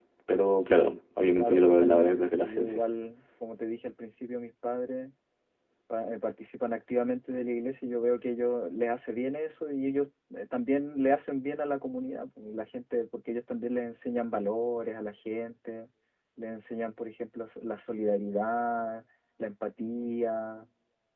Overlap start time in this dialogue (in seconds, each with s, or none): 1.4 s